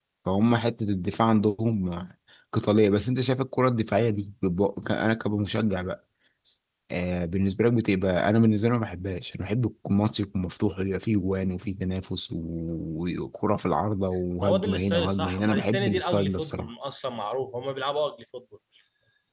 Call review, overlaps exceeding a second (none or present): present